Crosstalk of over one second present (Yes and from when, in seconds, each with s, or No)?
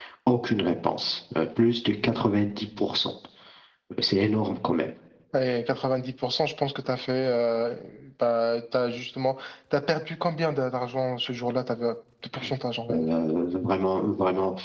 No